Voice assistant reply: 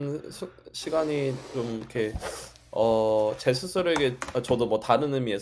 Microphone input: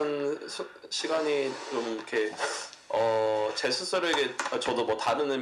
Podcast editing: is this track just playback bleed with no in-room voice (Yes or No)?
Yes